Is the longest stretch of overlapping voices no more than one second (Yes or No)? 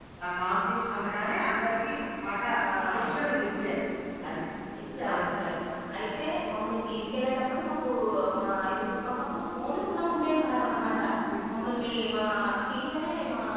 Yes